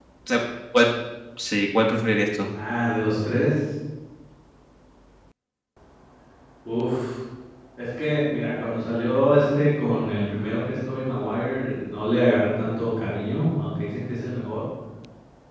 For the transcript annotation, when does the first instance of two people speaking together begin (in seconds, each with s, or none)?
none